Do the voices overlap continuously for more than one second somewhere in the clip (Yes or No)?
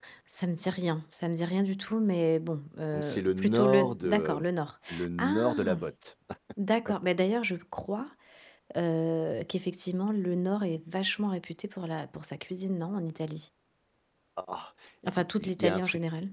Yes